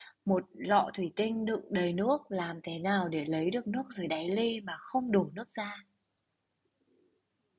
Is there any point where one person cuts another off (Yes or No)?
No